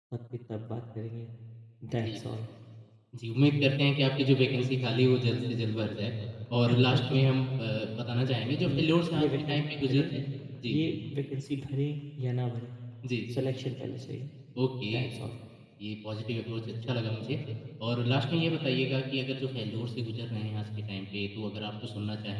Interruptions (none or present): present